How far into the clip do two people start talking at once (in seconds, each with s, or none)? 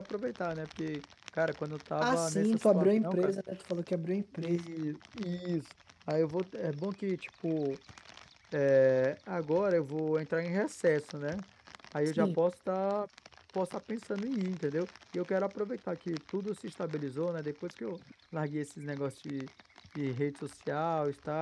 2.0 s